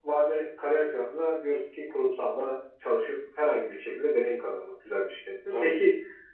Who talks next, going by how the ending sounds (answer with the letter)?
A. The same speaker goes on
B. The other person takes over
A